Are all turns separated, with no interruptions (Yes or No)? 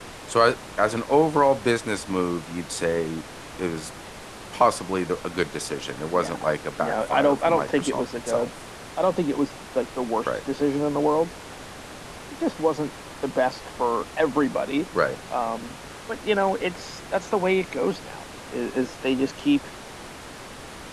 No